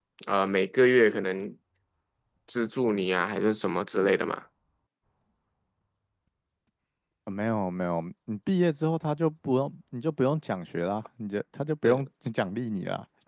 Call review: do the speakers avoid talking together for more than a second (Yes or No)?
Yes